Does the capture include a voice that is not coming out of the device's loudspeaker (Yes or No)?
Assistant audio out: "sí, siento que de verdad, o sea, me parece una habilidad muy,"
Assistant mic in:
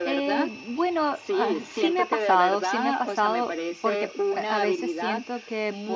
Yes